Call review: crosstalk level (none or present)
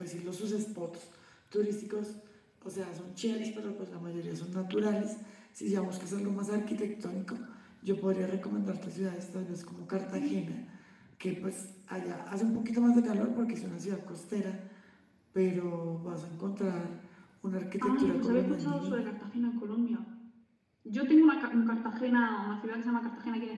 present